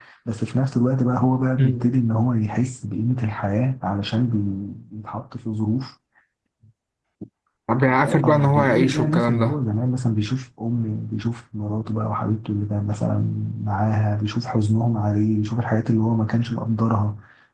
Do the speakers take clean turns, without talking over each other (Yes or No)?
No